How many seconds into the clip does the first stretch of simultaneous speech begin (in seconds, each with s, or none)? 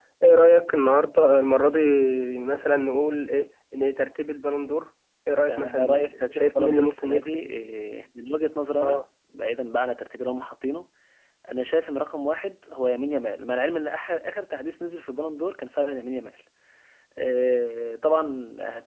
5.5 s